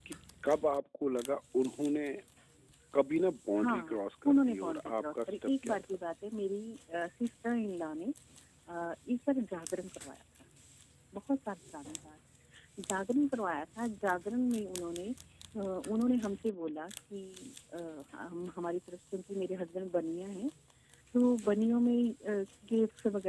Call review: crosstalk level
present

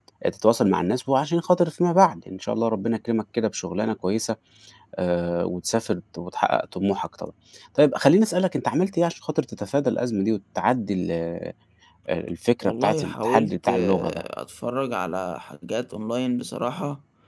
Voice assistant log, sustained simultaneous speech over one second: present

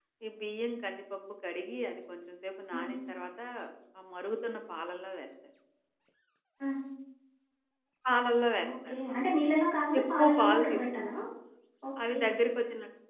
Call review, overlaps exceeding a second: present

